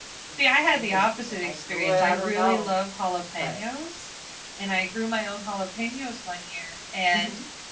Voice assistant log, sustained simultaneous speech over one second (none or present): present